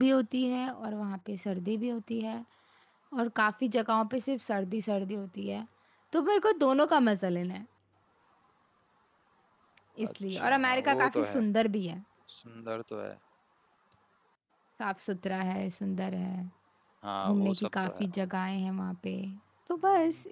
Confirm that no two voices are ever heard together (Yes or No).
No